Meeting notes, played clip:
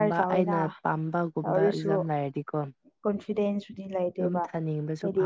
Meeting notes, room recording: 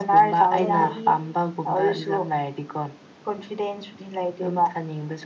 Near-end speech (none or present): present